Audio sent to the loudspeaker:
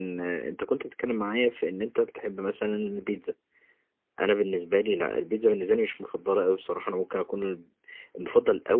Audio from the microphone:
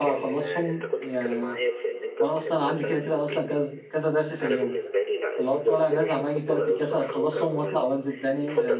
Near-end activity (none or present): present